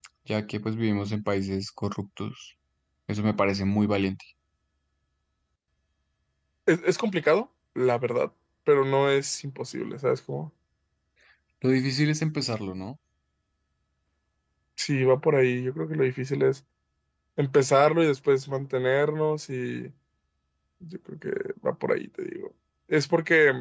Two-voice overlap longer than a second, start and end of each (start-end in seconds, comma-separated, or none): none